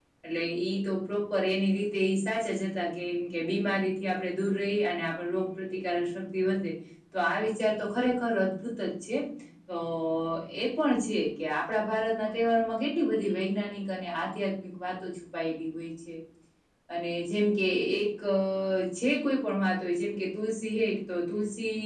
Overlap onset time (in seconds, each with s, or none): none